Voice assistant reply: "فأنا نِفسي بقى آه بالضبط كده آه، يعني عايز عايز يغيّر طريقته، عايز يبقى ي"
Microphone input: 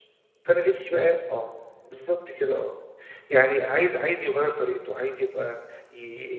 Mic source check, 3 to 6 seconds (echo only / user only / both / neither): echo only